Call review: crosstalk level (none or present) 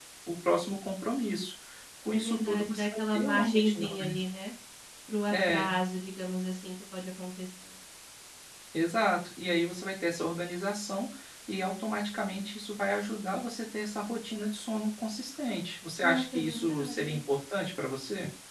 present